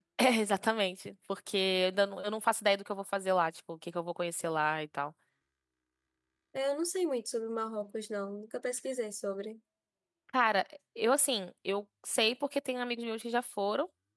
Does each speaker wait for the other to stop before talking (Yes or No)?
Yes